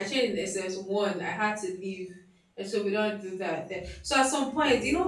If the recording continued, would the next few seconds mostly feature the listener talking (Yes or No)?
No